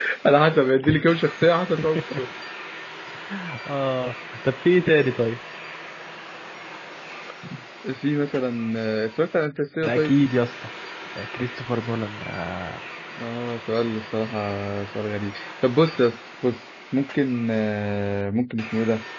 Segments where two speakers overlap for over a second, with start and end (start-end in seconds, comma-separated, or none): none